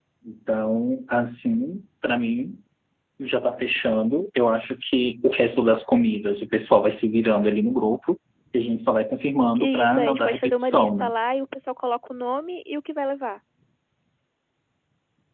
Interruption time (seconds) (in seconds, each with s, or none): 9.6 s